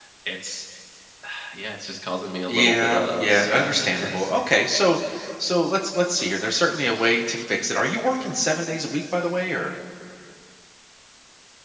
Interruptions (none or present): present